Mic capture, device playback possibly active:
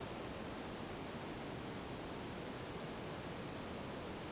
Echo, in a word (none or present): none